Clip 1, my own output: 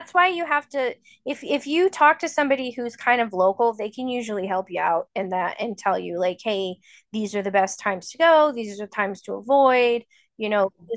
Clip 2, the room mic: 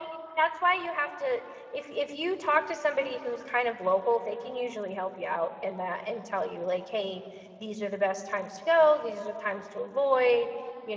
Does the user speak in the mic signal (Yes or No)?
No